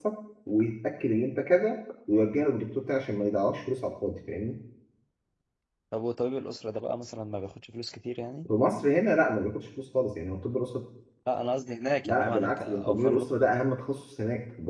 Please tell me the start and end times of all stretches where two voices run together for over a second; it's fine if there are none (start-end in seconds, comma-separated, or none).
12.1-13.3